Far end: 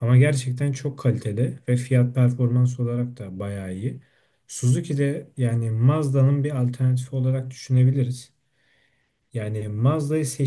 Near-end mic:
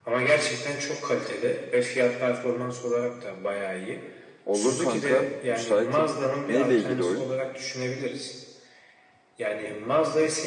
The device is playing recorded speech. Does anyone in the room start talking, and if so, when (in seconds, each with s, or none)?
4.5 s